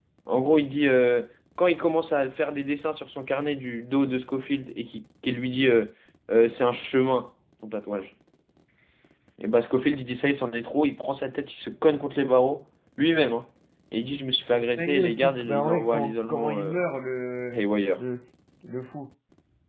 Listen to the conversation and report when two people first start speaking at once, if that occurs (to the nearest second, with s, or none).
15 s